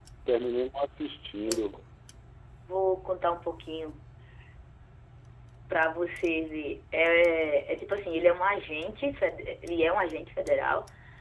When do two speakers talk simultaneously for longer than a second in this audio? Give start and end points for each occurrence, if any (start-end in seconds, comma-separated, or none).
none